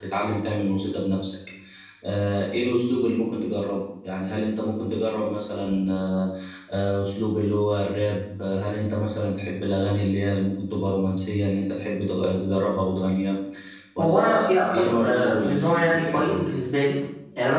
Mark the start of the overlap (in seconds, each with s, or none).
14.0 s